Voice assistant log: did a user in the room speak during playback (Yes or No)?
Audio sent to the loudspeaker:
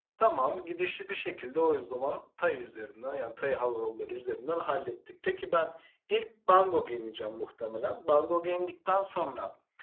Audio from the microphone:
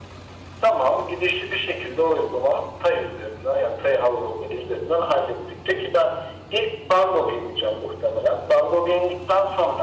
No